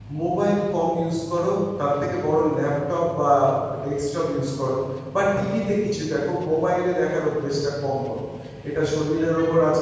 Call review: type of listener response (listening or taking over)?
listening